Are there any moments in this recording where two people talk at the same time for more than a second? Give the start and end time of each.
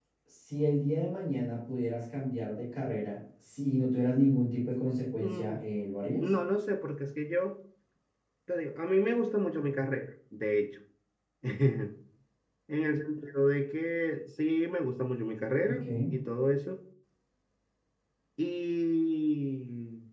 none

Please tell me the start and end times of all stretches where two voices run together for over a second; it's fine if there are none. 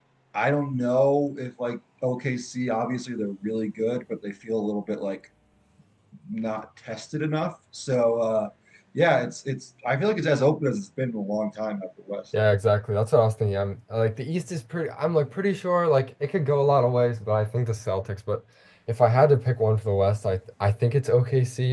none

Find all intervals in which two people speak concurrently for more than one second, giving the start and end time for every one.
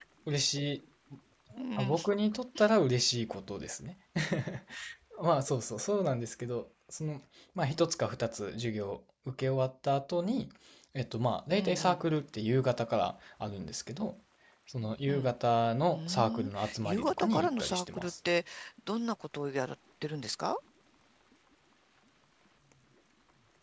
15.9-18.1

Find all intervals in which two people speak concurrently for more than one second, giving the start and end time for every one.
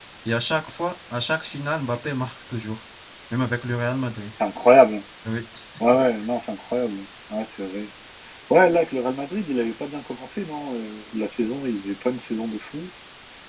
none

